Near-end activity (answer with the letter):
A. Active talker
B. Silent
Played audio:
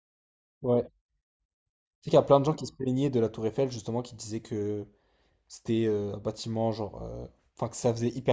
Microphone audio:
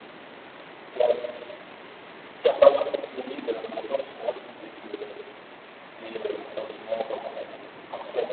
B